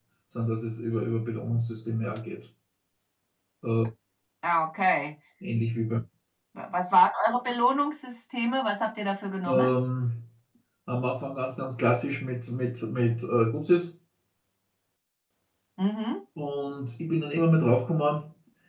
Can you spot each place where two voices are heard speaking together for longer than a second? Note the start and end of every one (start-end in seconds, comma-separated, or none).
none